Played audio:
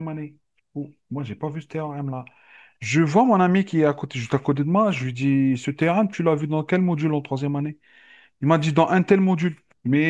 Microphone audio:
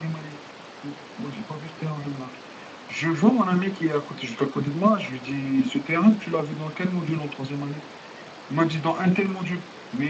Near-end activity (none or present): none